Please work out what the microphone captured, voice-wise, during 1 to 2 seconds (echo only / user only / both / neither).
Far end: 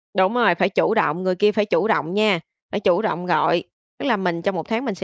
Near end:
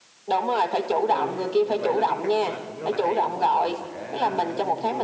both